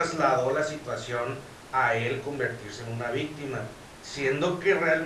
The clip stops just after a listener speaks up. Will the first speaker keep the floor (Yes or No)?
Yes